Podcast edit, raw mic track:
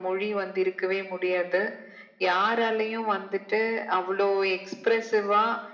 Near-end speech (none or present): none